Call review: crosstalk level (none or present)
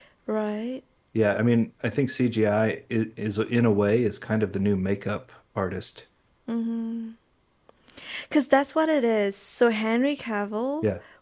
none